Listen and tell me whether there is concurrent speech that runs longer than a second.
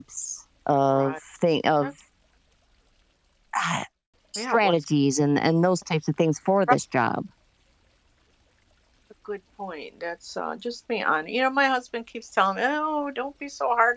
No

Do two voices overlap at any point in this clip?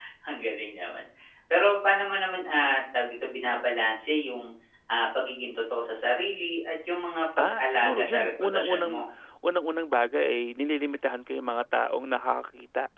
Yes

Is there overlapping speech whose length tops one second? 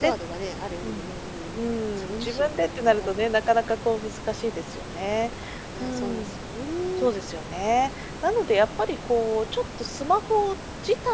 Yes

